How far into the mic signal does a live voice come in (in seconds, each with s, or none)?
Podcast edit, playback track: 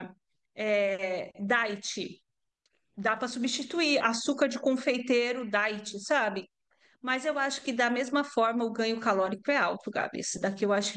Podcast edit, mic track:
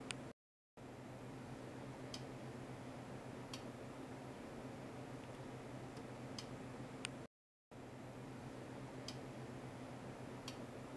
none